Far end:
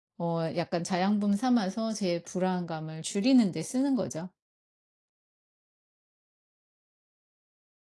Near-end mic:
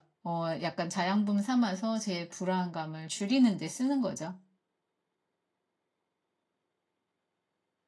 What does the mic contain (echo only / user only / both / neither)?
echo only